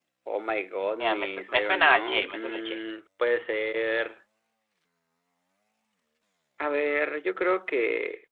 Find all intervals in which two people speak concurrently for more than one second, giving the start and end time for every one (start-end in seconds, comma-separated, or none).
1.0-2.8